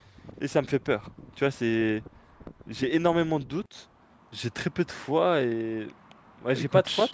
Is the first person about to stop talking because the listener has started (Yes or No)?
Yes